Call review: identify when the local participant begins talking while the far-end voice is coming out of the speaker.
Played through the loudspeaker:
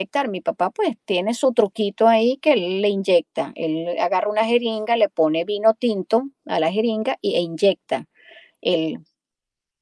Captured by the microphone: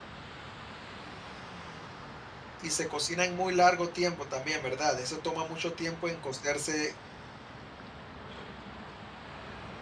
3 s

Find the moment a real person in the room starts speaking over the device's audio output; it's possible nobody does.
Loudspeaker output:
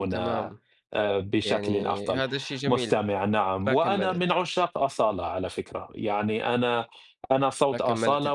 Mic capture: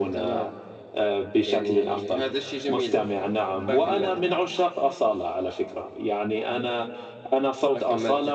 none

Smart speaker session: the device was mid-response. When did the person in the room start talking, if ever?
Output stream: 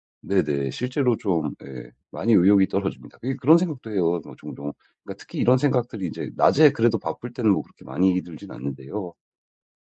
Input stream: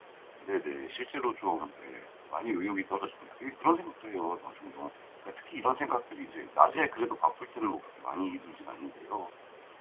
none

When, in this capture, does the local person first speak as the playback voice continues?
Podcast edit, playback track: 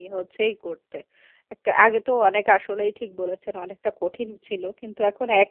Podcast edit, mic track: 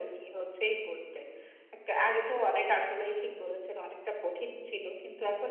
none

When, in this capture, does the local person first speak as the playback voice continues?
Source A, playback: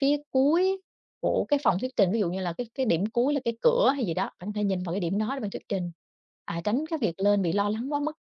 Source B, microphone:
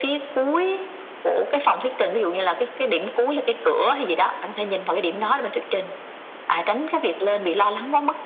none

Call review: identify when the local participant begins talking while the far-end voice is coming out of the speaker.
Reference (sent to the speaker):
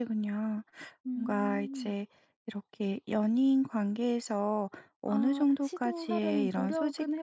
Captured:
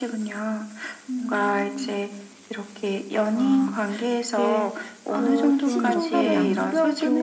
3 s

